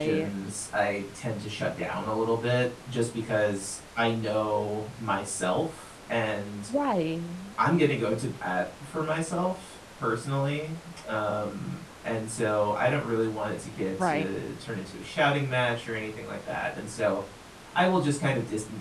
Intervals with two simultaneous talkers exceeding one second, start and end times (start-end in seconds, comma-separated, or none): none